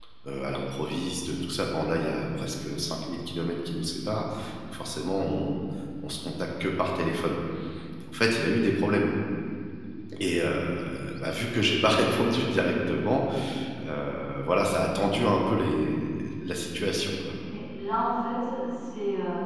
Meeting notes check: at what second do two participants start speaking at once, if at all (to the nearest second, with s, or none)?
none